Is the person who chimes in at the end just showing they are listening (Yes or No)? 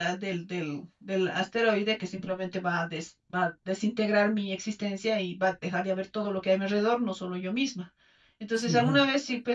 Yes